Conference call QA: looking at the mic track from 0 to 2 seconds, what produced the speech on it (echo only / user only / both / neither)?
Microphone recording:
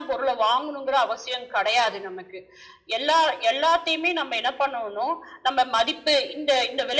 echo only